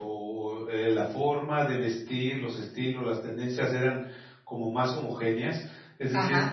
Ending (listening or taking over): listening